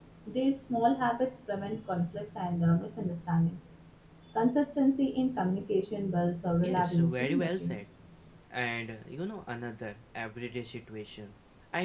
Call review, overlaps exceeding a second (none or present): present